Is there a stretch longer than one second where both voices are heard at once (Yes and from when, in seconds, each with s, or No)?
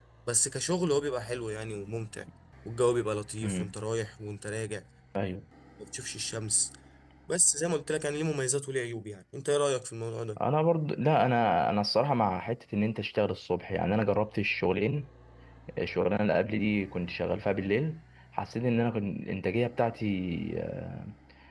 No